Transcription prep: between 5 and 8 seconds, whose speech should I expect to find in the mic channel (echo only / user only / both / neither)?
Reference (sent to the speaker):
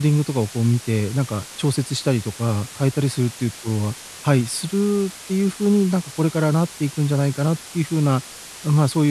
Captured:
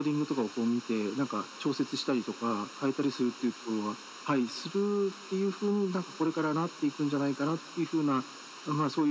echo only